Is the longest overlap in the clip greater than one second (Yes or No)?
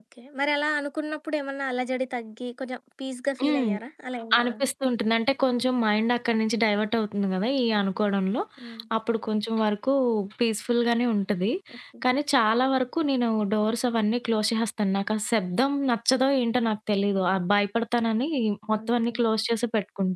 No